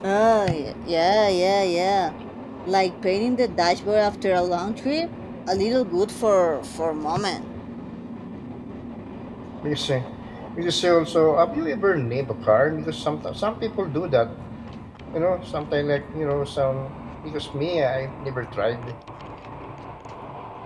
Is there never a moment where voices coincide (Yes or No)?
Yes